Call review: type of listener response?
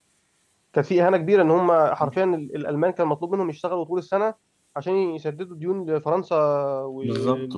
taking over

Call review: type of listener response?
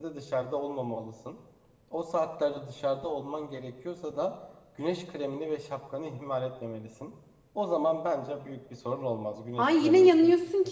taking over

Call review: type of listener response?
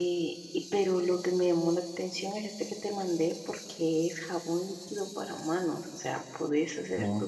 listening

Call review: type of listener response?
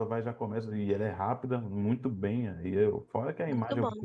listening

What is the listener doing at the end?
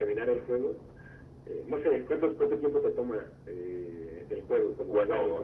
taking over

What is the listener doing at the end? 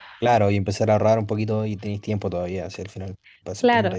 taking over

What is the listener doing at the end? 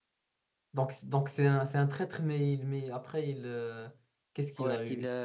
taking over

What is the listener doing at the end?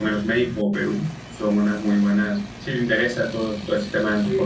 listening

